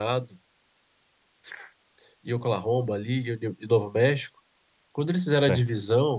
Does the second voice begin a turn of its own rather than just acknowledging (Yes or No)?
No